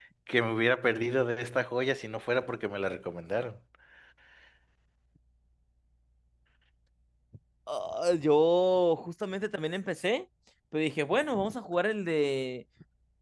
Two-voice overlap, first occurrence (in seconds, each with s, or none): none